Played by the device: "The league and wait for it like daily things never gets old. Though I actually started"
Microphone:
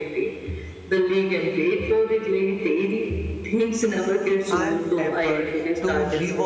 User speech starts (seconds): 4.5 s

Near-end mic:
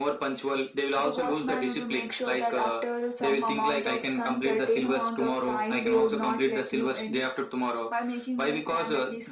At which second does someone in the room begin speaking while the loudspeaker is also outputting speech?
none

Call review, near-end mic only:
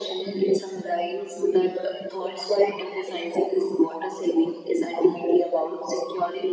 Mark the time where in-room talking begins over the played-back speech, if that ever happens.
none

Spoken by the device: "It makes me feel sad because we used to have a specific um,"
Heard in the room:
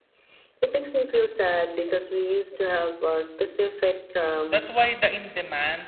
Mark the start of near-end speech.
4.5 s

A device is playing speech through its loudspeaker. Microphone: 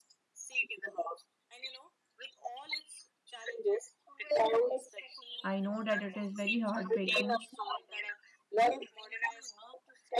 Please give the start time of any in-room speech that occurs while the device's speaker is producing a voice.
5.4 s

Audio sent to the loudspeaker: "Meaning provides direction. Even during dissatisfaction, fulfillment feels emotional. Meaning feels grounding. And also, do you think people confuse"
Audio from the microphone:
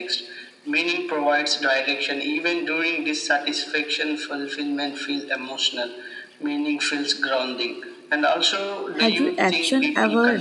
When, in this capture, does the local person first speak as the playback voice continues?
9.0 s

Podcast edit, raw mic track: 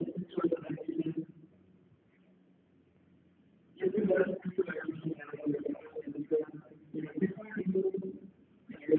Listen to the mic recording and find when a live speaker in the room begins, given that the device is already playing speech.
3.8 s

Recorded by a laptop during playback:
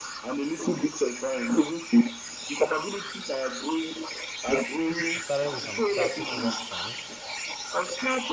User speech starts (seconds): 5.2 s

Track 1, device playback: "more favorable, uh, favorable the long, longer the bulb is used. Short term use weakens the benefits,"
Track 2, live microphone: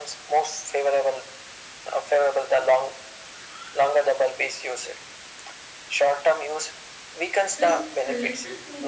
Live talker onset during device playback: 7.5 s

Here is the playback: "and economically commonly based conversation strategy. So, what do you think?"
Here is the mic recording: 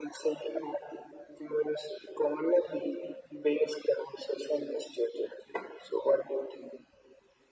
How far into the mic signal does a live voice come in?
none

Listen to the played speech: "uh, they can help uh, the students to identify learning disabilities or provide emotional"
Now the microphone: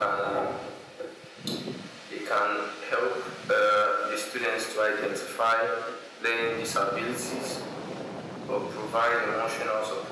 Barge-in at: none

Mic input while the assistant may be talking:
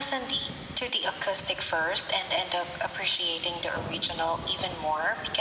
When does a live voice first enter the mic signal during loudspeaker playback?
none

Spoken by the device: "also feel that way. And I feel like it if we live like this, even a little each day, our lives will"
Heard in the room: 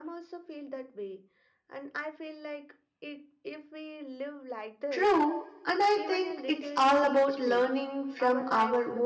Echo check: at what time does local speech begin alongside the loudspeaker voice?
4.9 s

